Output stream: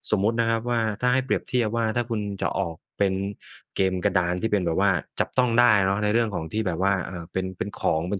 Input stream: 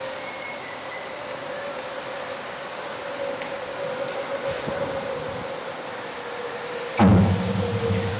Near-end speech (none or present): present